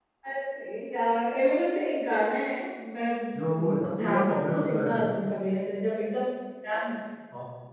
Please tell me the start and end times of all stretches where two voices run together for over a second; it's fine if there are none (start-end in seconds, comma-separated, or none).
3.6-5.1